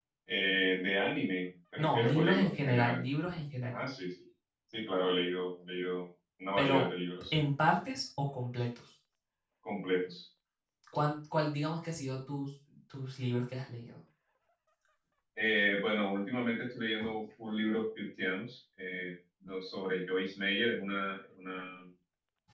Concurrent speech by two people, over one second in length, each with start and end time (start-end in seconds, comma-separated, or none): 1.8-3.0